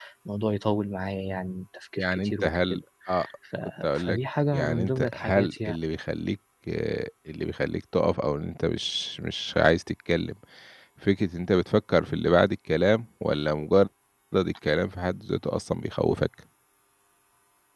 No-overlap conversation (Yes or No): No